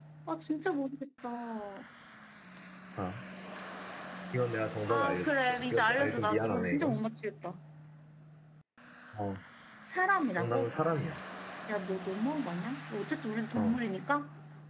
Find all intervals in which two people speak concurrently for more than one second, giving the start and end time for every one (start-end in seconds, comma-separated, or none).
4.9-7.0